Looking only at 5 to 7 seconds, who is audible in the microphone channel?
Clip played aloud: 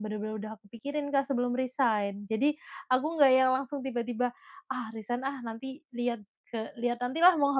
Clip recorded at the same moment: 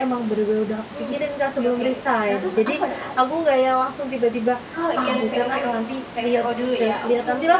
both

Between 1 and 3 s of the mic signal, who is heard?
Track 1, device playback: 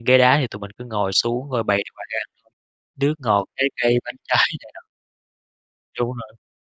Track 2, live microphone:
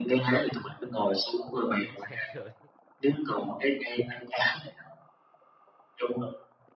both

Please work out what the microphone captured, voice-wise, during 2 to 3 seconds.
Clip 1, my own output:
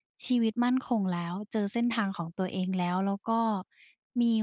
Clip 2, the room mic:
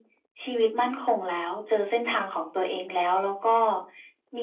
echo only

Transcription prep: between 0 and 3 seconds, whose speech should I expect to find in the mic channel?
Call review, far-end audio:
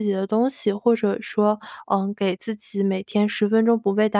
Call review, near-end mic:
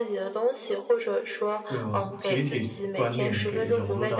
both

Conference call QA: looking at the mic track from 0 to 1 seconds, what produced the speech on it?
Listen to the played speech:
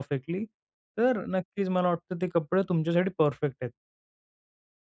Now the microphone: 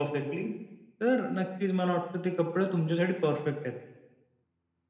echo only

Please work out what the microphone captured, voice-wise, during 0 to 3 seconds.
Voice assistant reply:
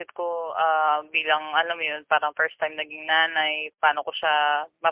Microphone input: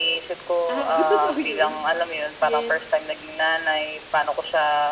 both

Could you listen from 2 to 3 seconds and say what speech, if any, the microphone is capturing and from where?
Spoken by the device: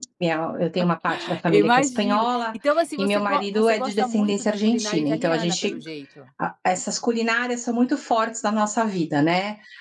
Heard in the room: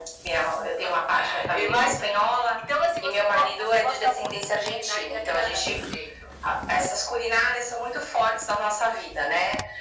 echo only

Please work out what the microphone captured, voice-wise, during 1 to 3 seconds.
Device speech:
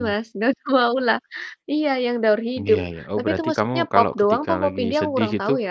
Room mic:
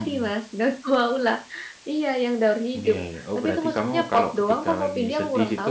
echo only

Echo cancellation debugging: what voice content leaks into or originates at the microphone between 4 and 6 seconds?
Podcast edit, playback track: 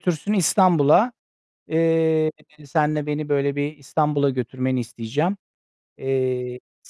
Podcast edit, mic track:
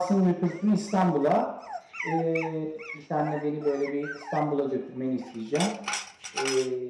echo only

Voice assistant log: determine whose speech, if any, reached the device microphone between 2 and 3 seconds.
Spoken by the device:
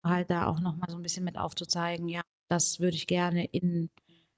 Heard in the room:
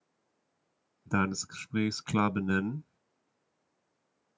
user only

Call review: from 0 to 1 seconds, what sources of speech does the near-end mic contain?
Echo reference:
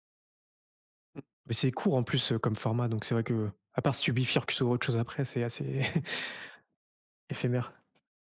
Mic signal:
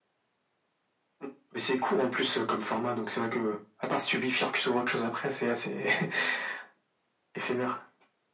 neither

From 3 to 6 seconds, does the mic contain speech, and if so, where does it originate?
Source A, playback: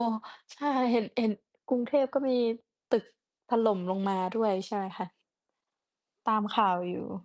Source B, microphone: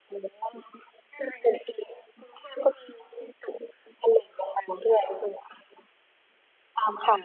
echo only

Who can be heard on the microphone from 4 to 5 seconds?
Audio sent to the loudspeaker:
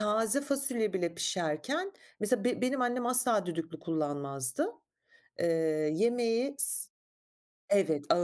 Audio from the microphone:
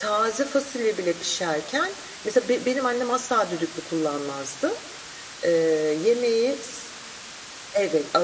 echo only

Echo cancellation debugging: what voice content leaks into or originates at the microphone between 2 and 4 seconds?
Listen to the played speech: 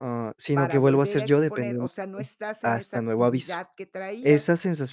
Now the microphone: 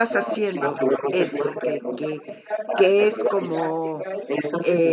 both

